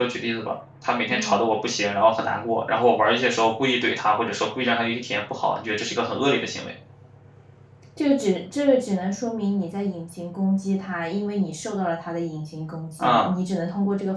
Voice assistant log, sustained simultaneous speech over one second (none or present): none